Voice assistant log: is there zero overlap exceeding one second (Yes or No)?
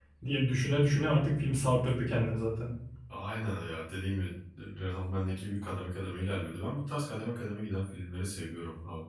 Yes